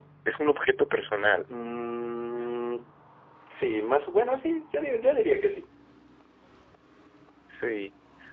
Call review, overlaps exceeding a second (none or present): none